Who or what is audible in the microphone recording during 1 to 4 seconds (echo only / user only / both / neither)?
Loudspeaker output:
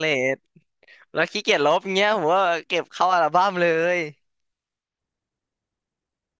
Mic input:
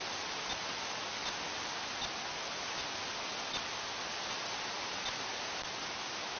neither